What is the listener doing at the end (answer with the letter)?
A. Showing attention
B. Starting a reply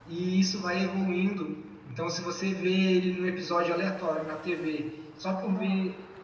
A